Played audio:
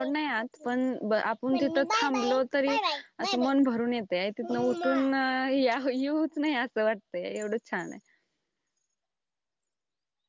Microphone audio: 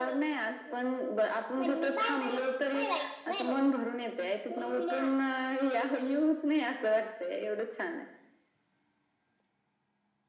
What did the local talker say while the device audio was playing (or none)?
none